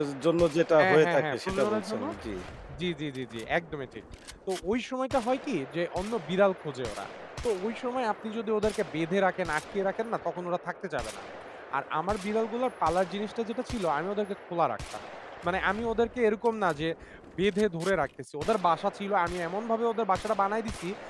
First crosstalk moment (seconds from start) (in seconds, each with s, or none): 0.8 s